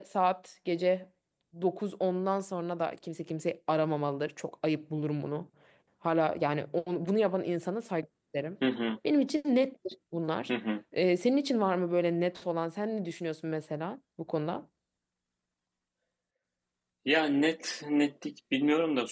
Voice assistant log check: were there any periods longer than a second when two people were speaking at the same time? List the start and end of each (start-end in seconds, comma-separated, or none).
none